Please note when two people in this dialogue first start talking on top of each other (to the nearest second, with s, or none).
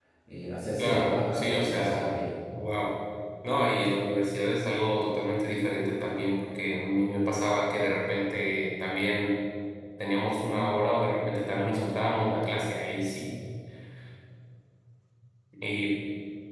1 s